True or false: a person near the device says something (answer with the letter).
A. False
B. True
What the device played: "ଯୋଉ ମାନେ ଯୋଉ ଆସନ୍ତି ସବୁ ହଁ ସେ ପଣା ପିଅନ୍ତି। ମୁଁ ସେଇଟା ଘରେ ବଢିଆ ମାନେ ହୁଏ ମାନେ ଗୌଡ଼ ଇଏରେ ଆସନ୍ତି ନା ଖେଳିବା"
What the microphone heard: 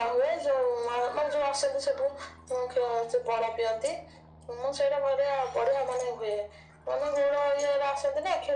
A